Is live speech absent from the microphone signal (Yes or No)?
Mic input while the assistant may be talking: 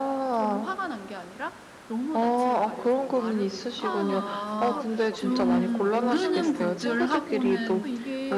No